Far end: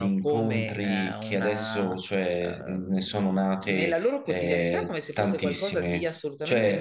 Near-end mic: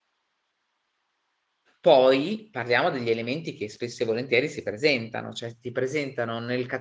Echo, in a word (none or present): none